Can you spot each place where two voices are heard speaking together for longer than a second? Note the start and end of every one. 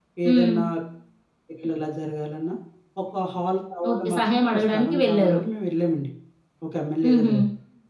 3.9-5.4

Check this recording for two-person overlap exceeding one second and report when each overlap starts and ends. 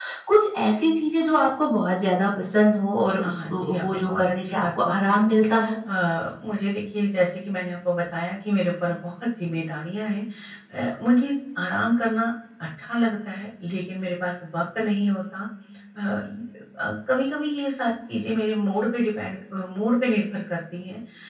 3.2-5.2

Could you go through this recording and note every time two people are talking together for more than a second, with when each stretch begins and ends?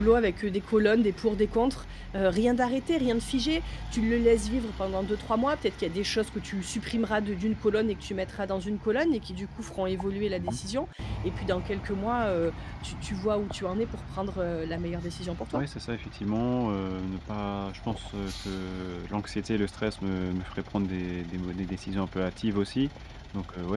none

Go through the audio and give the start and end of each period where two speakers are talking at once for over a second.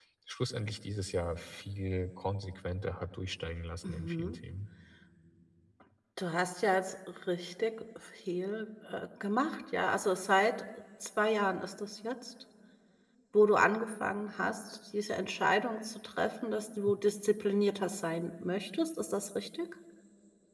none

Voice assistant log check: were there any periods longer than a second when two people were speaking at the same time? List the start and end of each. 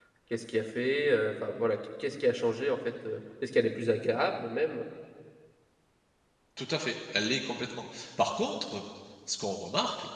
none

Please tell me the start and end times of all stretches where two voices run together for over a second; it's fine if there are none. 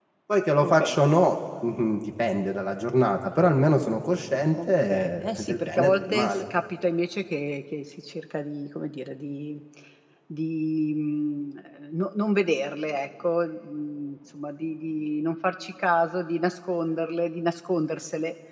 4.5-6.4

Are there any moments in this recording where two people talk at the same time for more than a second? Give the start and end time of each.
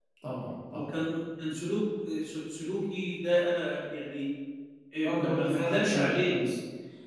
5.0-6.4

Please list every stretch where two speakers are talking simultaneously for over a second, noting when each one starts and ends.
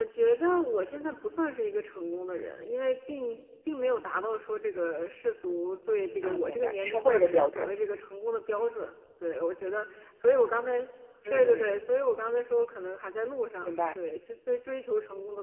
6.2-7.7

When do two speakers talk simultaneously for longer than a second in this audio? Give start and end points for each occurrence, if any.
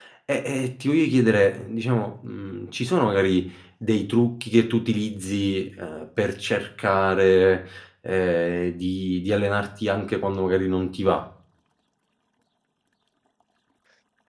none

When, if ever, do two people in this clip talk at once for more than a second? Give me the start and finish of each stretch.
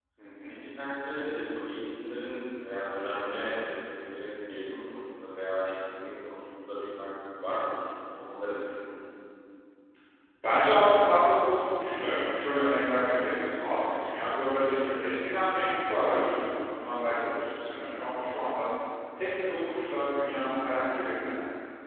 none

